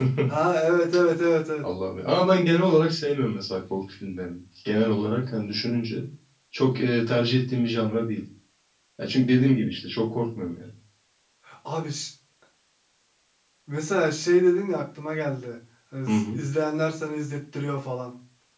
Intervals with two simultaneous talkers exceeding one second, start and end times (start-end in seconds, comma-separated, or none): none